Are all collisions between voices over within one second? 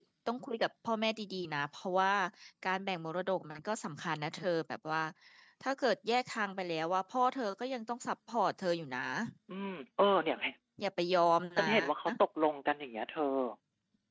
Yes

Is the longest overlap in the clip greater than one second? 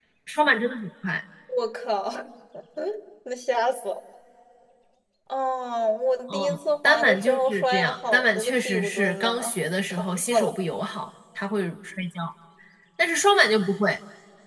Yes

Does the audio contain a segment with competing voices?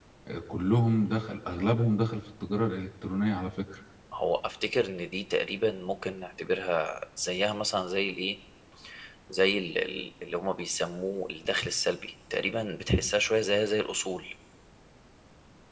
No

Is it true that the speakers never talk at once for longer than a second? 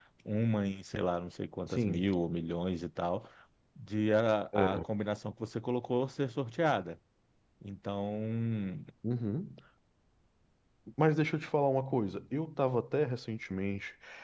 Yes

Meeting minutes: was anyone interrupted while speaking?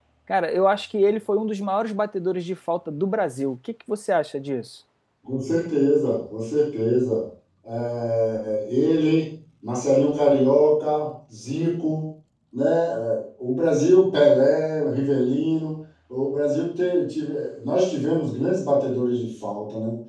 No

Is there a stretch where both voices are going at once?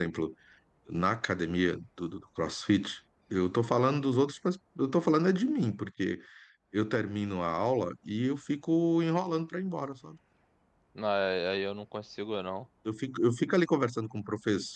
No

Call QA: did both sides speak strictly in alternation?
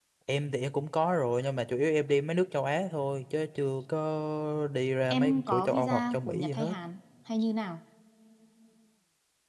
No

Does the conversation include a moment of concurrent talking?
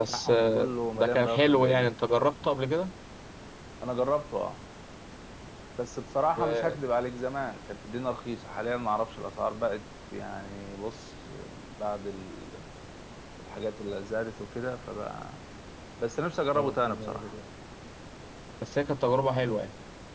Yes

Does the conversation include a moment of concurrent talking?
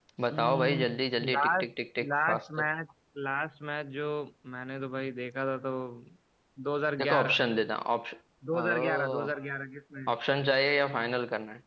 Yes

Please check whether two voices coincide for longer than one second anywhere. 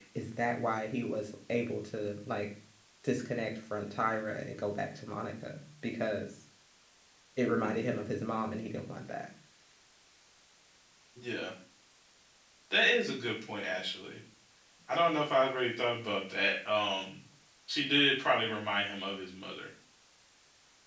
No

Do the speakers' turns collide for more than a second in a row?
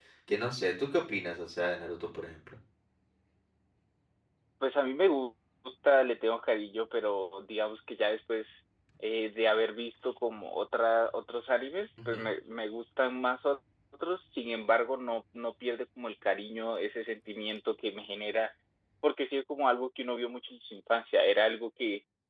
No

